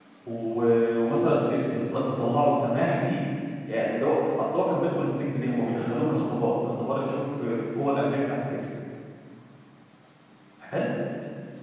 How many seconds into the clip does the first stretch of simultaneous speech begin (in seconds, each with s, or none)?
none